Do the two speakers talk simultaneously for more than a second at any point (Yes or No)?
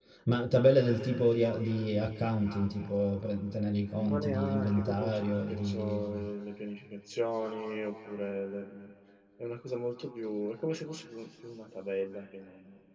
Yes